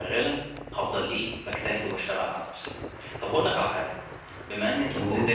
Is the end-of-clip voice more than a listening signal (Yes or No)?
No